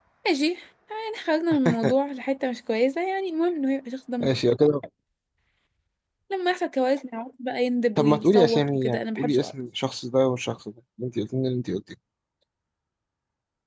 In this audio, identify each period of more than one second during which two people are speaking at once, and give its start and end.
8.0-9.5

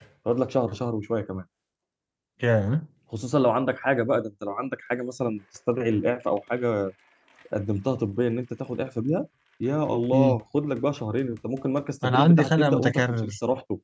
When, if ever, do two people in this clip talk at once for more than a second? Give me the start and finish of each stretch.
12.0-13.3

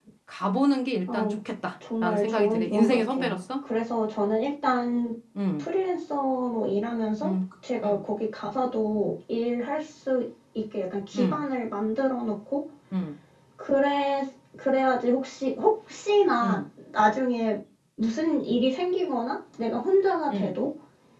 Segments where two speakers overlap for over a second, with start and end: 2.0-3.4

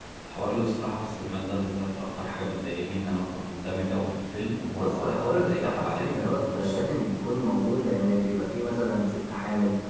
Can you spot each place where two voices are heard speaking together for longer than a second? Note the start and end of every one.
4.8-6.8

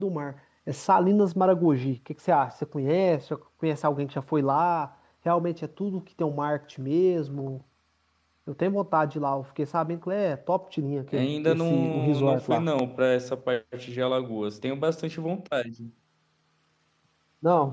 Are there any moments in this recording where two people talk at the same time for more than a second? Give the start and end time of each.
11.1-12.6

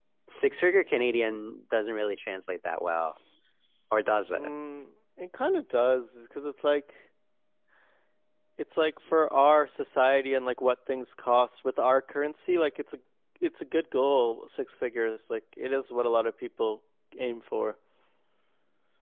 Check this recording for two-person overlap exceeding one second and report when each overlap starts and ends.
none

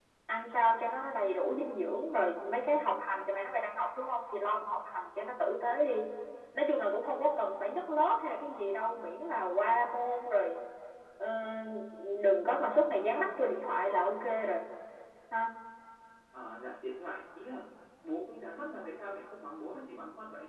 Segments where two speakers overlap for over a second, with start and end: none

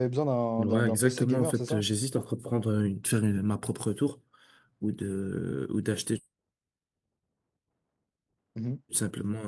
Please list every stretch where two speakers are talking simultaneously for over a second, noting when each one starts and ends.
0.6-1.8

